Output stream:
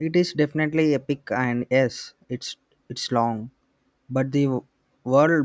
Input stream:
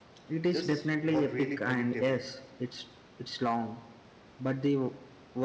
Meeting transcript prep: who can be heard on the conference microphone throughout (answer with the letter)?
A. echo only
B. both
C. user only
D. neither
B